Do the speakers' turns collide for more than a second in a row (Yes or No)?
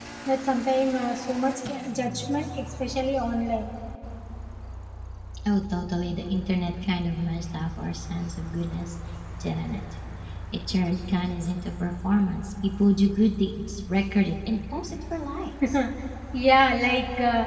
No